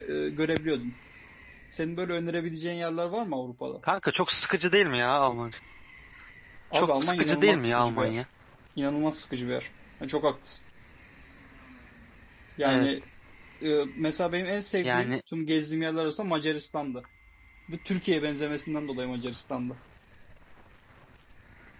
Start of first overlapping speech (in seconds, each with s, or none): 6.7 s